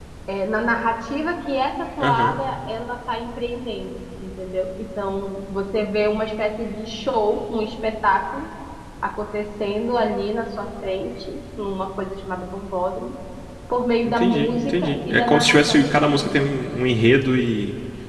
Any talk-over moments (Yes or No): Yes